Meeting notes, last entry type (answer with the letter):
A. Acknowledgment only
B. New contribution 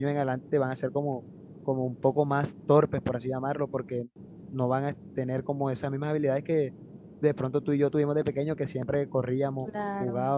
A